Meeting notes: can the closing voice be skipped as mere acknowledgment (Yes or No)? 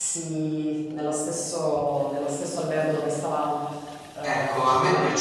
No